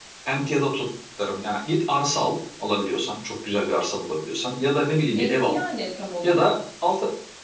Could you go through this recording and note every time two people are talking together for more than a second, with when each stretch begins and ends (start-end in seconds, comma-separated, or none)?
none